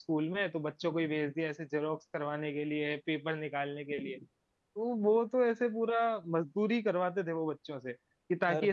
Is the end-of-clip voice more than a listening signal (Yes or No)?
No